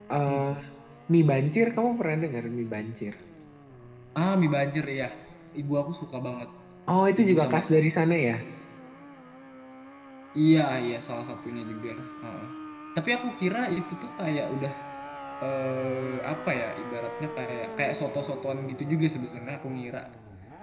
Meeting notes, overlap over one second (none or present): none